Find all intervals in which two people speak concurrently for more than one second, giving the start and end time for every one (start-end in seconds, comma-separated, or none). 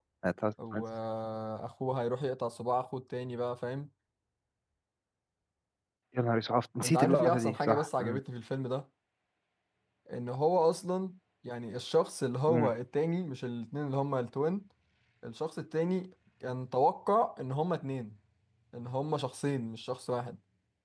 6.8-8.2